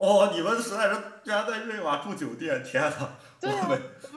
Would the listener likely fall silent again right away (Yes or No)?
No